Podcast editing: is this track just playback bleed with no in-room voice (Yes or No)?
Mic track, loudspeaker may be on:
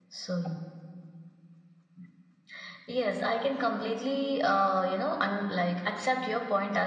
Yes